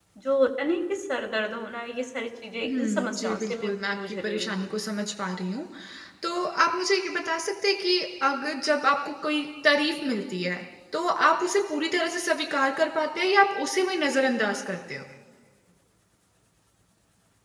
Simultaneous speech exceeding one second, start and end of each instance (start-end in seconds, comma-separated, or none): 2.7-4.7